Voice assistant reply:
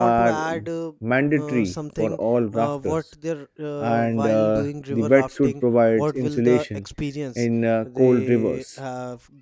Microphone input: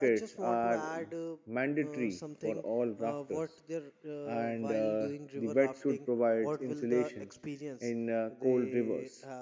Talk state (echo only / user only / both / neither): echo only